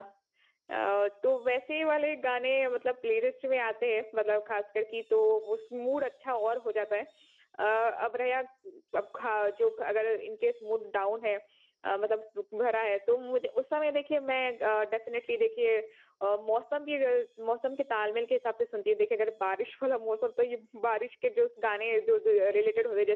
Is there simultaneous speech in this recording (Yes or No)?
No